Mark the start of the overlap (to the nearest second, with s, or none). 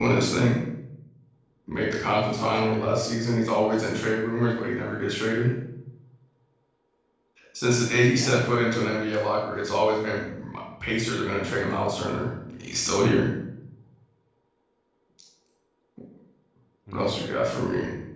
2 s